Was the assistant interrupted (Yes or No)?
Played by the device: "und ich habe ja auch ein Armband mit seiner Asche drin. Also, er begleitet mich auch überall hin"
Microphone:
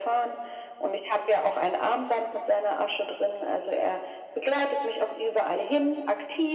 No